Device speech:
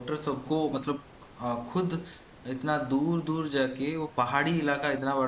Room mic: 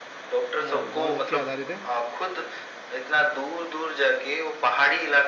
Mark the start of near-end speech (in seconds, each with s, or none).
0.6 s